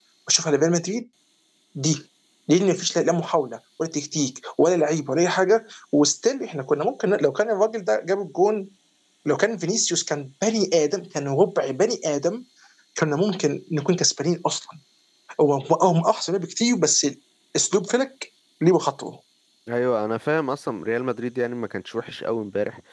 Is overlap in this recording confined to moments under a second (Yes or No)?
Yes